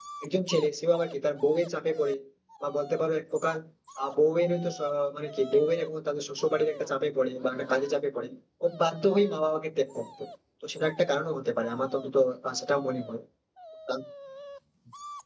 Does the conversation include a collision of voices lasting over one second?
No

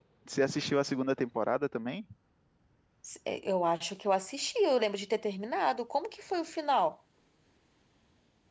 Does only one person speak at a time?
Yes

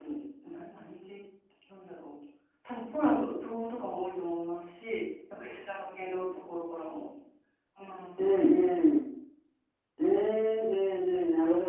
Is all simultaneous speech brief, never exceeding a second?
Yes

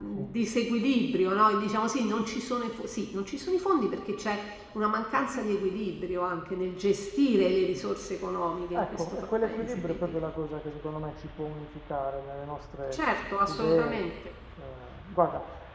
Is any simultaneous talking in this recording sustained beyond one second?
Yes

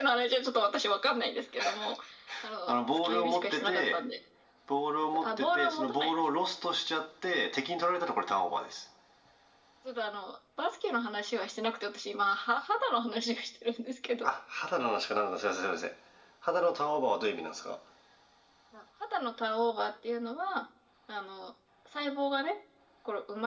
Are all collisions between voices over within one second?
No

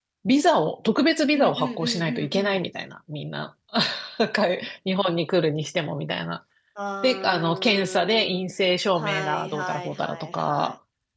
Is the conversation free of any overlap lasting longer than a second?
No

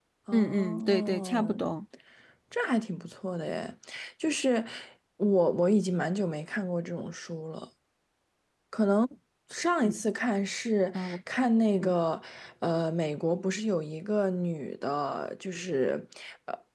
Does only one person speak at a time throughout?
No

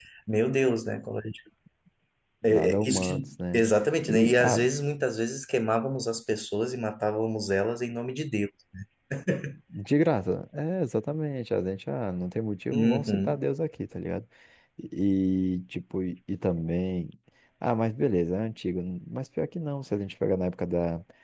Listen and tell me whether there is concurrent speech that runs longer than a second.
Yes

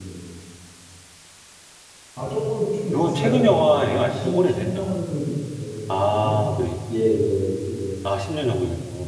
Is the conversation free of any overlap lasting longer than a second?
No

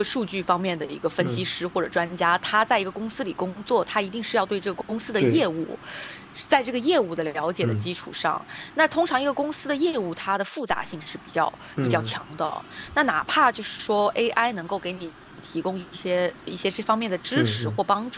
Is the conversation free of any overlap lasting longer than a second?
Yes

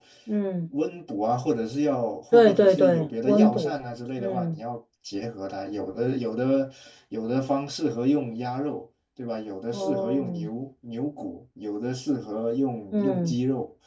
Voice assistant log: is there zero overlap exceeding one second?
No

